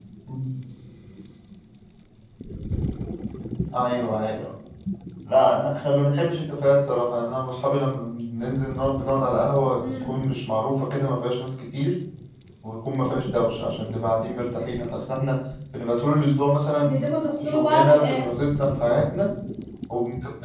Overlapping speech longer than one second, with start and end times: 16.8-18.3

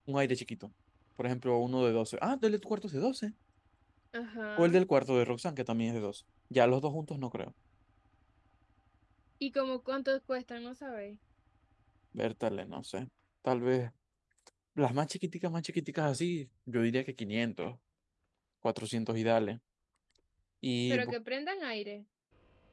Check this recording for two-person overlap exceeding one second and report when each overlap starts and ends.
none

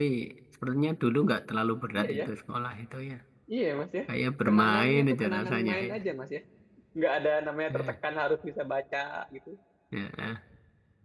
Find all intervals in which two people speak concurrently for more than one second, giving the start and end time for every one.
4.5-6.0

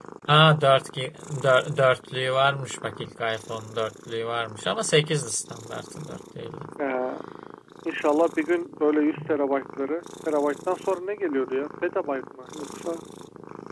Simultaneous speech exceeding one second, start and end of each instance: none

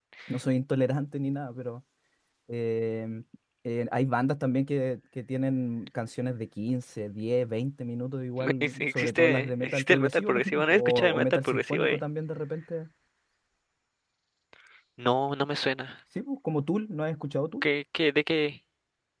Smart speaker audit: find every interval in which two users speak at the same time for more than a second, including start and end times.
8.4-12.0

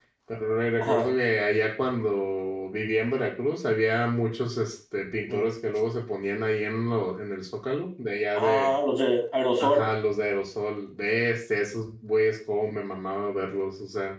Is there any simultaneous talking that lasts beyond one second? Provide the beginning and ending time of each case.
none

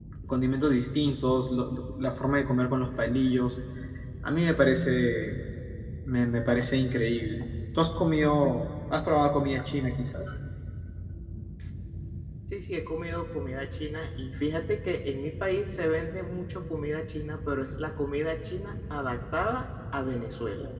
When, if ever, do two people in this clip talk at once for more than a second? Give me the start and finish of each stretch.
none

